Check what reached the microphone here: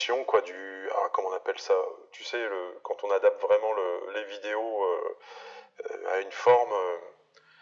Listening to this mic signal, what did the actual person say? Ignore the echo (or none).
none